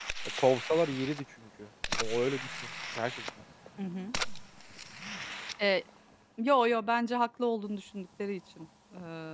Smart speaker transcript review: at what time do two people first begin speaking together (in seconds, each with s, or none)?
none